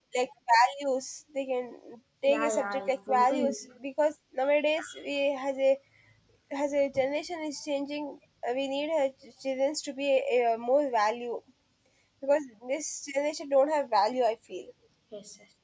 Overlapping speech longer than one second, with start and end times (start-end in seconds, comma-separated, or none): 2.3-3.6